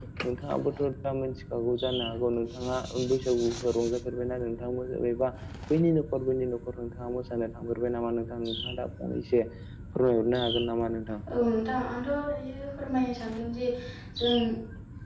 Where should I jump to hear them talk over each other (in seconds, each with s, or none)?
none